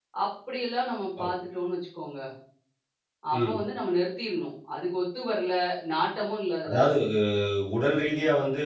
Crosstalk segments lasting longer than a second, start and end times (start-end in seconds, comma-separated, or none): none